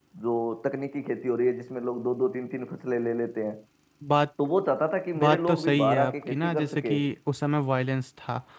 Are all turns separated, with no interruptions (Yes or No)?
No